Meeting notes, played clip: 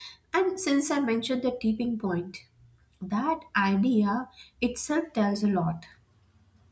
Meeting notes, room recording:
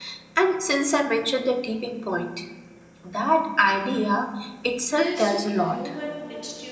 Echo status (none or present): present